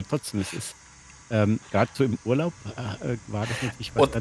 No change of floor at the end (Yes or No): Yes